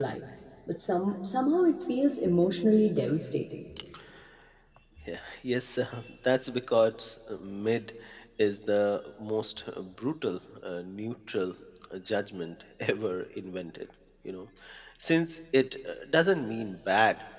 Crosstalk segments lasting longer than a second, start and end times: none

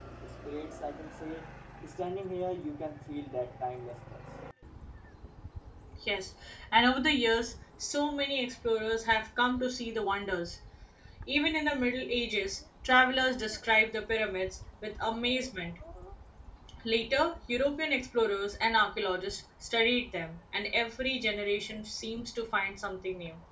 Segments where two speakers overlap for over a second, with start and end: none

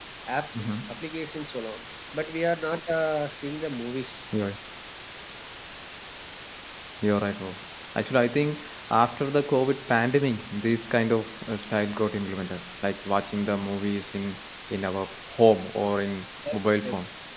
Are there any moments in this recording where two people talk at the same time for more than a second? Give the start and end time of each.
none

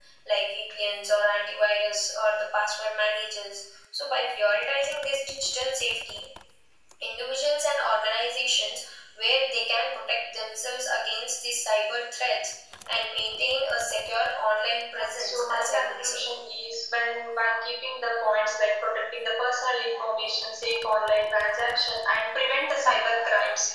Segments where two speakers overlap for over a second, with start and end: 14.8-16.2

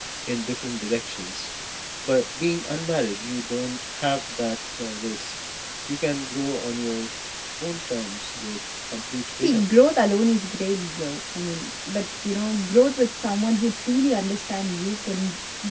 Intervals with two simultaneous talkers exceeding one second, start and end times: none

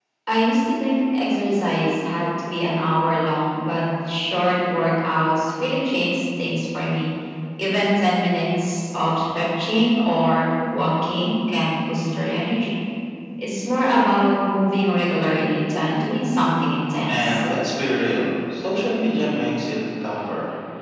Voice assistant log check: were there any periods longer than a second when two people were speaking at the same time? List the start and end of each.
none

